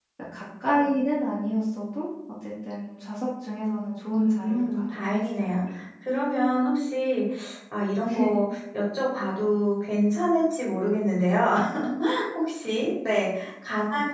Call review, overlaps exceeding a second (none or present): present